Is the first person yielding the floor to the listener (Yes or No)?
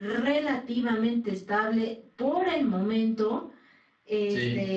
No